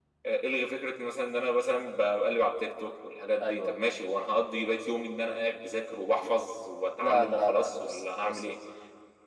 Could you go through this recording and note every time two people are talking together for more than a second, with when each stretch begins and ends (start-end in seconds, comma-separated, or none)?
7.0-8.6